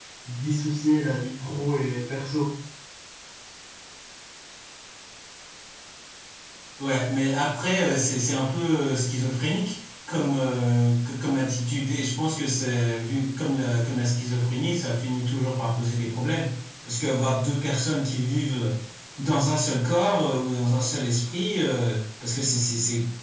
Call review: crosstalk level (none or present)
none